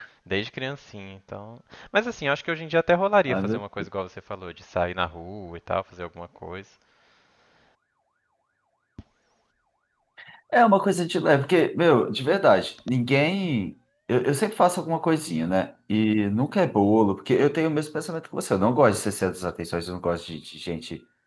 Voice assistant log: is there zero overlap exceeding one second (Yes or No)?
Yes